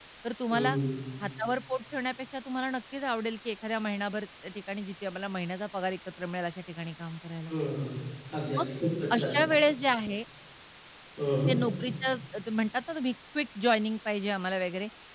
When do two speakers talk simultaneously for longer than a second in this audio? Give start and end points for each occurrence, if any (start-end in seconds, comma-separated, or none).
none